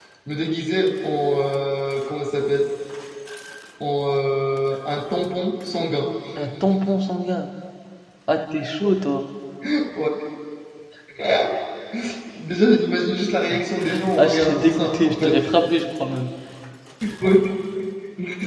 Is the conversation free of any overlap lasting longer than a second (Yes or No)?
No